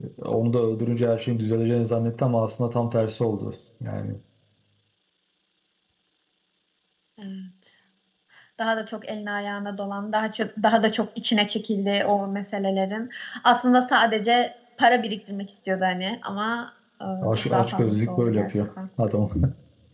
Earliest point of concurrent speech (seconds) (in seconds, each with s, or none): 17.2 s